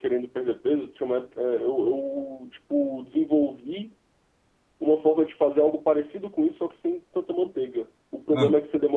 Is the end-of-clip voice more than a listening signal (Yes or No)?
No